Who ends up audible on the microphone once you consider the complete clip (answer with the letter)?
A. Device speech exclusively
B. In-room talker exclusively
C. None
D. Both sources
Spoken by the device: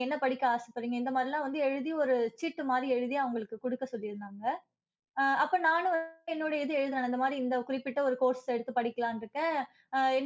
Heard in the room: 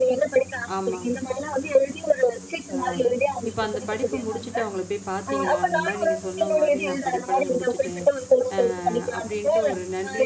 D